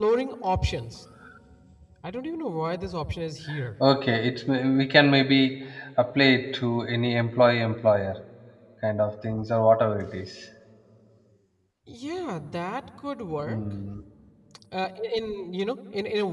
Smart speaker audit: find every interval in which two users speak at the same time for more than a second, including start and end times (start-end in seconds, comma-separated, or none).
none